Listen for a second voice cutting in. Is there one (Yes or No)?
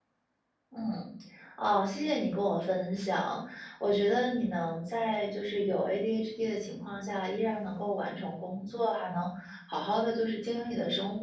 No